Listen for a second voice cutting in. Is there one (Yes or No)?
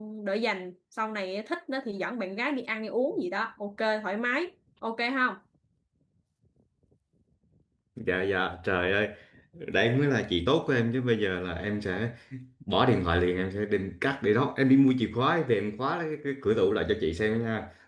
No